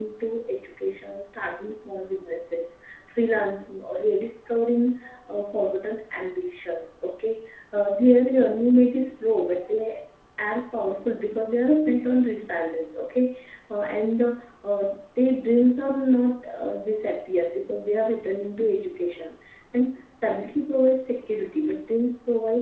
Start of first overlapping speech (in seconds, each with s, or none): none